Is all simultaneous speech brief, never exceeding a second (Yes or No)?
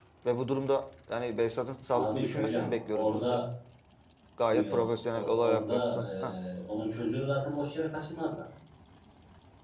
No